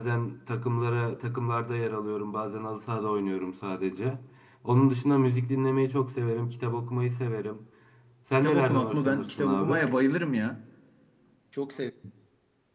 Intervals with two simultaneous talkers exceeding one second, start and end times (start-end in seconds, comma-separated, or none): 8.4-9.8